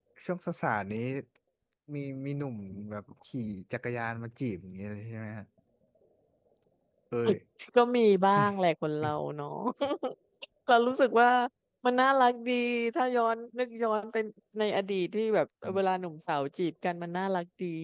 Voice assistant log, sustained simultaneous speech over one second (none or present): none